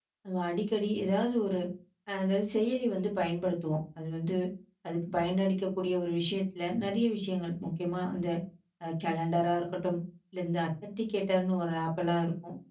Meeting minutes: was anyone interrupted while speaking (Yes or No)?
No